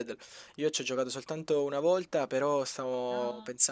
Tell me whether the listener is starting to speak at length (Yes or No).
No